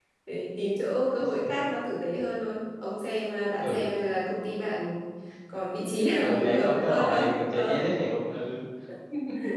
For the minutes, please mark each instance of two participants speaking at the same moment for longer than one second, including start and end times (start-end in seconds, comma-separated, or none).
6.2-7.8